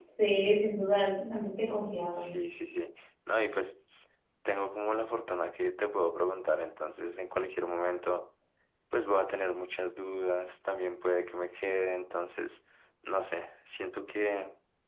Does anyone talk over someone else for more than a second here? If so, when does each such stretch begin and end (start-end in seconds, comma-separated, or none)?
none